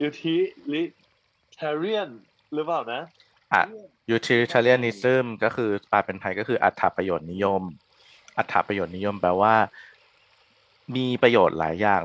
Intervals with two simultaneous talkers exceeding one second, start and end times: none

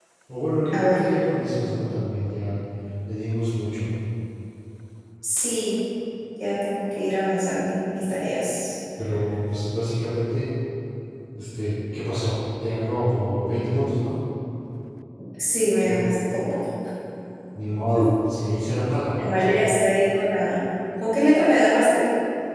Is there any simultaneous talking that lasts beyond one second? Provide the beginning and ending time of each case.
none

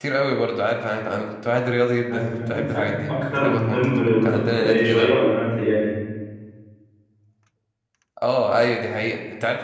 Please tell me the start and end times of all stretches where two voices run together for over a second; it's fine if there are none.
2.1-5.1

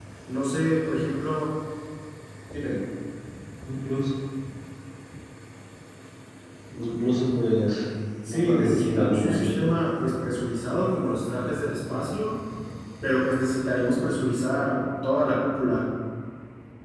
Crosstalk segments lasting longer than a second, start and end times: 8.3-9.7

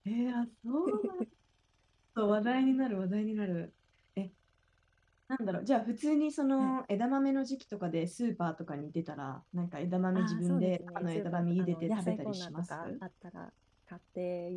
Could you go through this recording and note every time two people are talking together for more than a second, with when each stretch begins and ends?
10.2-12.9

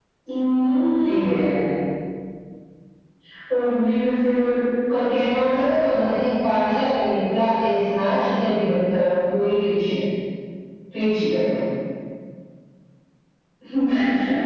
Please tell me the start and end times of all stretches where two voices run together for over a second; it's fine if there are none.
none

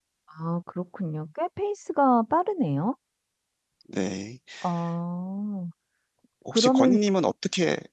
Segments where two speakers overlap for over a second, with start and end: none

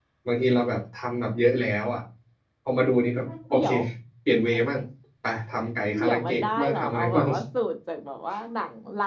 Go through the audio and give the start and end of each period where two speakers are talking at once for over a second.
6.0-7.3

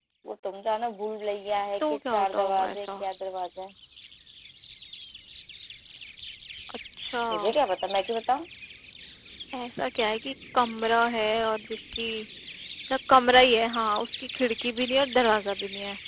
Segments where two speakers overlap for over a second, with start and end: 1.8-3.0

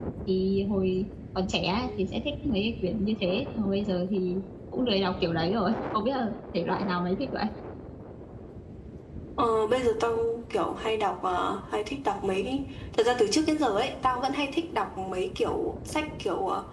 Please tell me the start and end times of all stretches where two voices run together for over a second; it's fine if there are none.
none

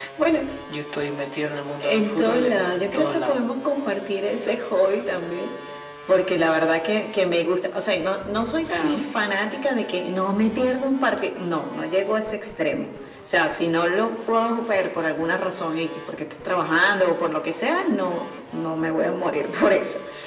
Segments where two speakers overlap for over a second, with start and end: 1.8-3.4

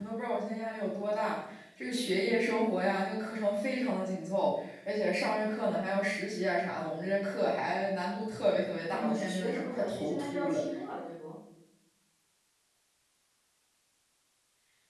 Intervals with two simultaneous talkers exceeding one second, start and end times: 8.9-10.6

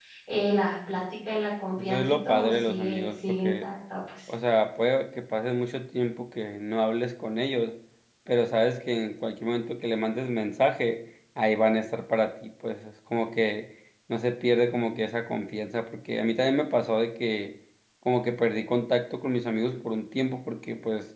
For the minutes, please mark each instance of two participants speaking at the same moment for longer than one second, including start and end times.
1.7-3.6

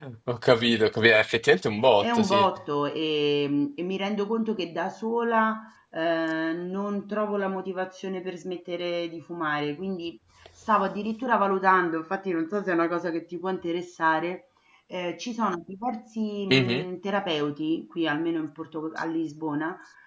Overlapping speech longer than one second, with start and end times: none

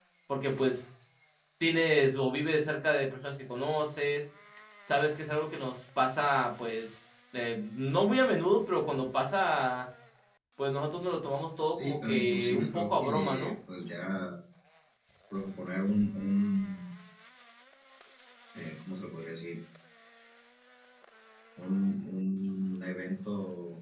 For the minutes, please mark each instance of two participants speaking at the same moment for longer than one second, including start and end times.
11.7-13.5

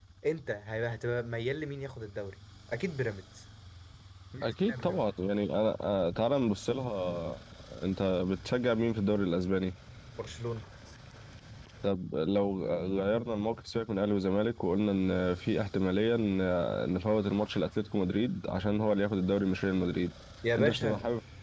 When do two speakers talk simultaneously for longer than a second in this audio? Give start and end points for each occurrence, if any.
none

